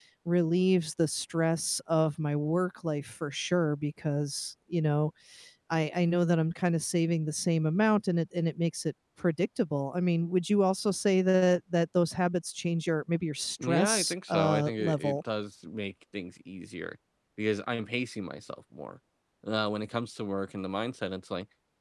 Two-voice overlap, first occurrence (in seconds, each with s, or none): 13.6 s